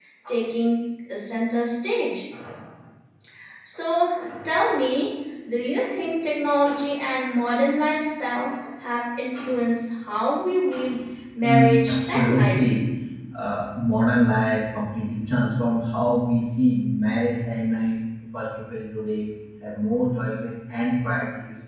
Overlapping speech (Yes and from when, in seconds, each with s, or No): Yes, from 11.4 s